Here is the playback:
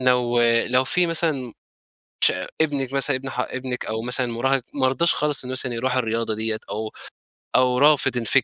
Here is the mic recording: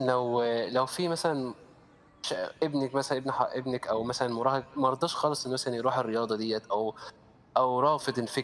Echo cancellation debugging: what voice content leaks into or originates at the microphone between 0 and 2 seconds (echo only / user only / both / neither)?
echo only